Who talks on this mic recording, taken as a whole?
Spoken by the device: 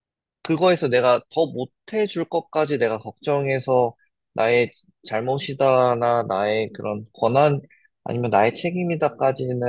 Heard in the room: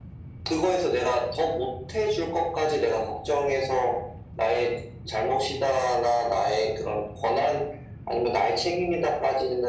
echo only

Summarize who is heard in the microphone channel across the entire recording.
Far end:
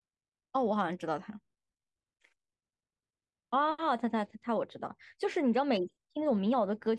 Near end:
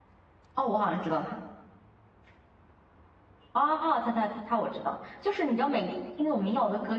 echo only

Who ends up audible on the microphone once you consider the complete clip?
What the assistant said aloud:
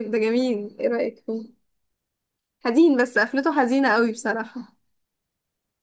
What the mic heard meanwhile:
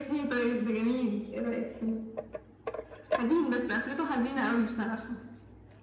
echo only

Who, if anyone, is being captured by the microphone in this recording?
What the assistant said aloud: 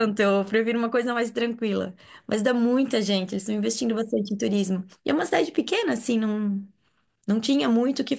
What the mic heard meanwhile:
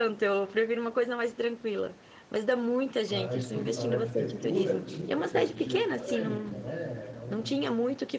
both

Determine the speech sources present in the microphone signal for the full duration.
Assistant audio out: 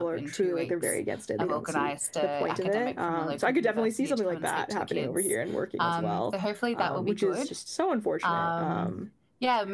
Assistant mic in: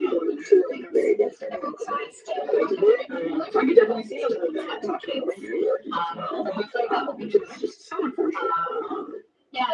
echo only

